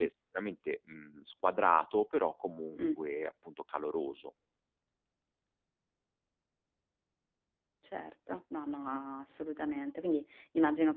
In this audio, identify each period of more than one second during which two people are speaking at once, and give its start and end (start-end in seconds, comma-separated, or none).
none